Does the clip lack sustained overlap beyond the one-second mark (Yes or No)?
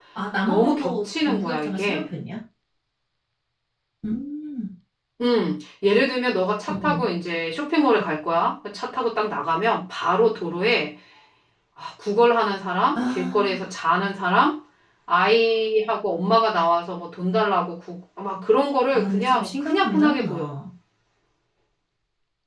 No